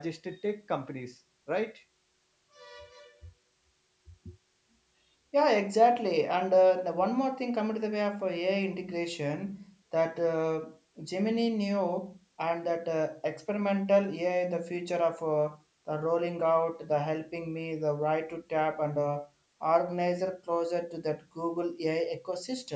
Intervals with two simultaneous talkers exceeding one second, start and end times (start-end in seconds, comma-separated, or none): none